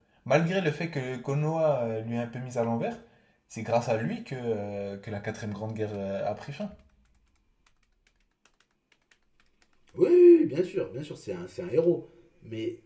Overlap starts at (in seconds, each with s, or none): none